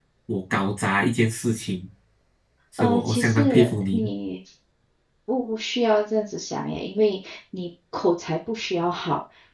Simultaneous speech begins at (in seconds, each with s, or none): 2.8 s